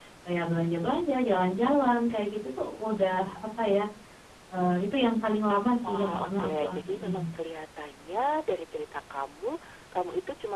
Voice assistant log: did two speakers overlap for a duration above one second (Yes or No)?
Yes